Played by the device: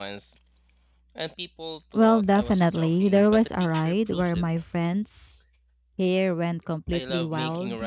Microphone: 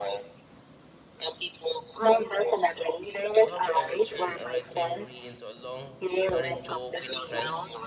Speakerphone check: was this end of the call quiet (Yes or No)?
No